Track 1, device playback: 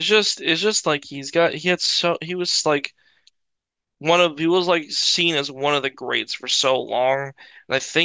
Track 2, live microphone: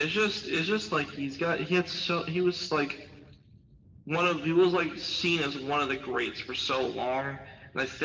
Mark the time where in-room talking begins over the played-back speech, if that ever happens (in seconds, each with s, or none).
none